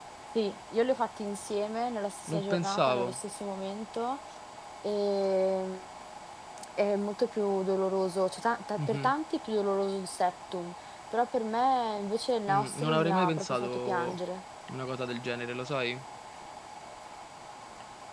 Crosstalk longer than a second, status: present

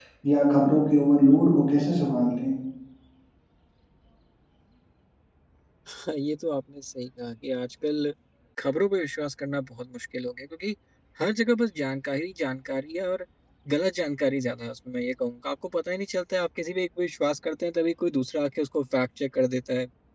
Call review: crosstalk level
none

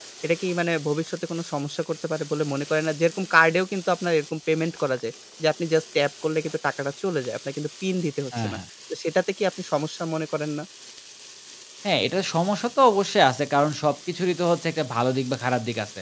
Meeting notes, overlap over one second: none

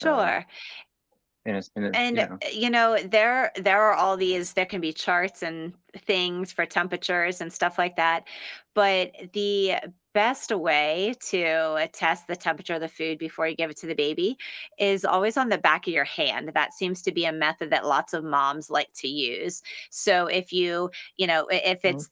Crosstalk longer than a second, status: none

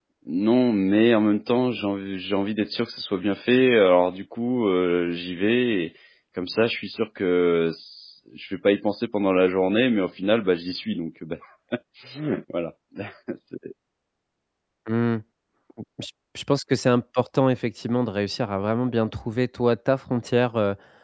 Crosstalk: none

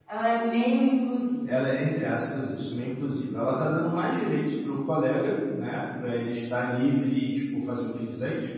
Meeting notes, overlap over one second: none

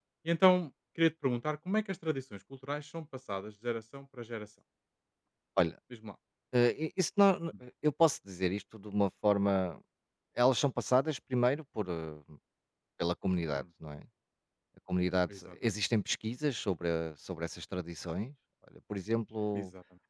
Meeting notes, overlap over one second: none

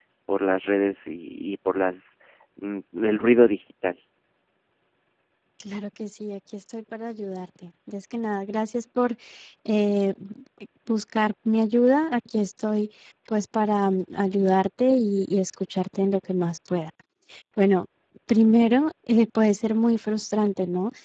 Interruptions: none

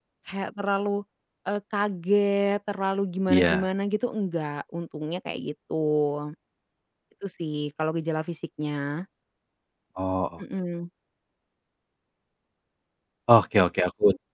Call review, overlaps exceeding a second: none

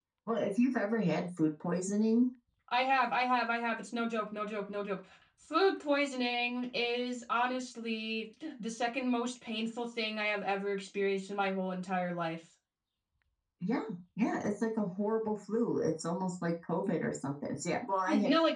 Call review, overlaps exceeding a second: none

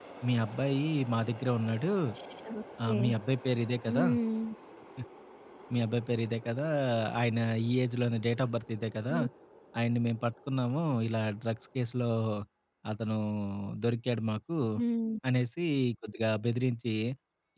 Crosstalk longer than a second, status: none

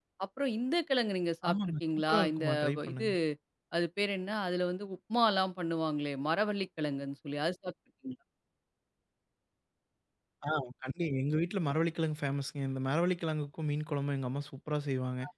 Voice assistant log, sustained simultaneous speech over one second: present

